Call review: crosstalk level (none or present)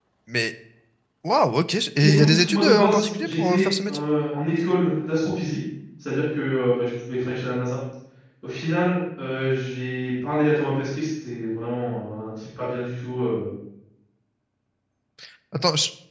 present